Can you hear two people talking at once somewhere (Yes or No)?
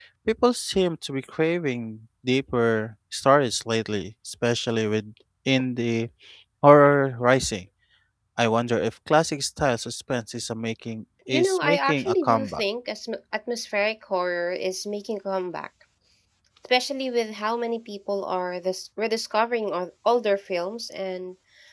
Yes